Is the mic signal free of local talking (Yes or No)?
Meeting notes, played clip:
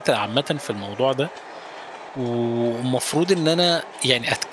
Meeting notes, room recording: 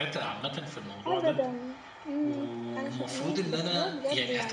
No